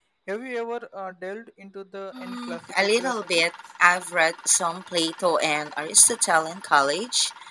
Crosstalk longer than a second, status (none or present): present